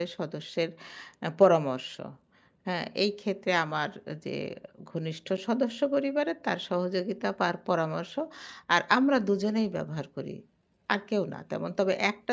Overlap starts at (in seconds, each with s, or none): none